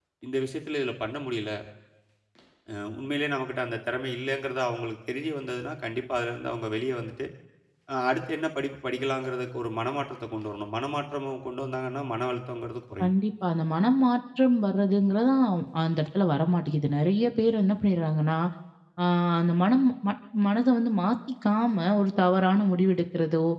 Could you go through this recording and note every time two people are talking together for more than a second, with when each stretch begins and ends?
none

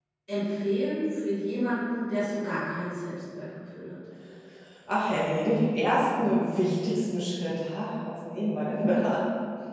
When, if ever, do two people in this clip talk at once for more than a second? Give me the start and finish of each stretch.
none

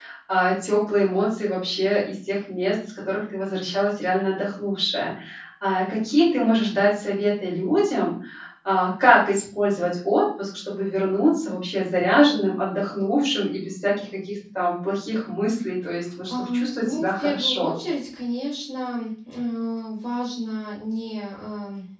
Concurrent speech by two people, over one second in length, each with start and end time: 16.3-17.8

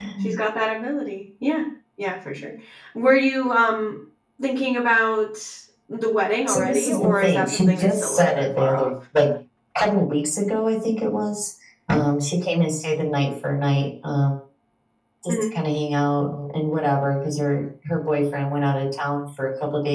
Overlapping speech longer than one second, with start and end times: 6.5-8.9

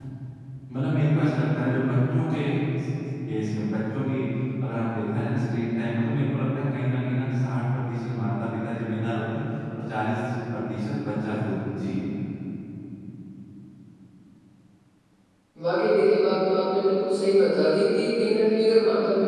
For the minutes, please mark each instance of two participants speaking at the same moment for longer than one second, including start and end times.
none

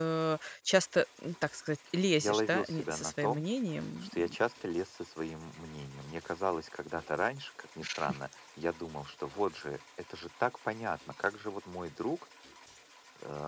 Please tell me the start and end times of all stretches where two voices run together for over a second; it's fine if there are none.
2.2-3.4

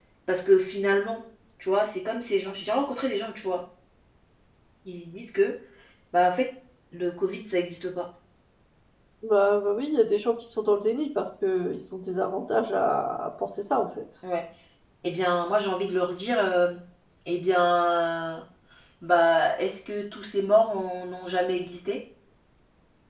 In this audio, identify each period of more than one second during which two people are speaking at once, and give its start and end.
none

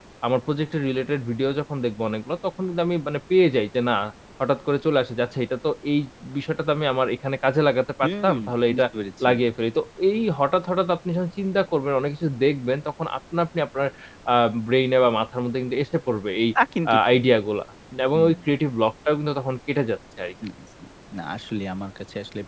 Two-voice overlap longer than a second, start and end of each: none

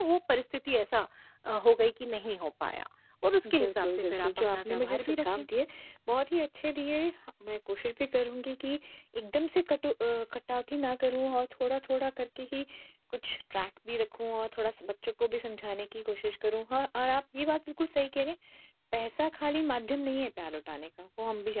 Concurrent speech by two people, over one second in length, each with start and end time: 3.6-5.5

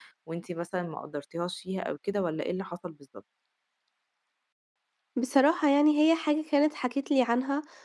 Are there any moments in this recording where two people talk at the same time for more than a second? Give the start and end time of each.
none

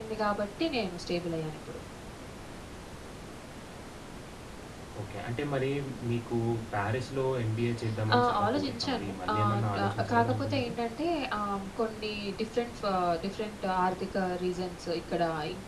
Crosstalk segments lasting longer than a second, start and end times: 8.2-10.7

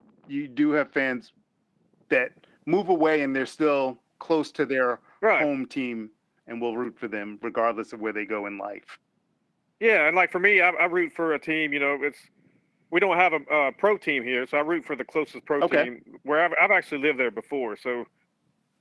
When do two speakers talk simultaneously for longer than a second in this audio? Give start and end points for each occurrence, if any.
none

